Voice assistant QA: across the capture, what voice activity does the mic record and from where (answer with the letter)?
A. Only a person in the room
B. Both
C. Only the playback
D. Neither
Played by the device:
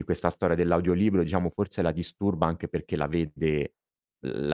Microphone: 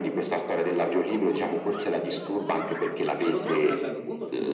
B